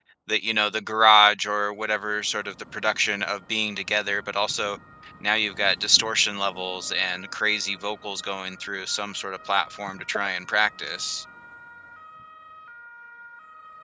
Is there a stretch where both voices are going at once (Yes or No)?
No